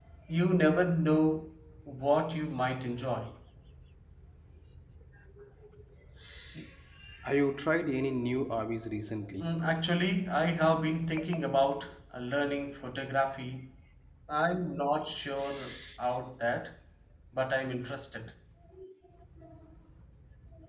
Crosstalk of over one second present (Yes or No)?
No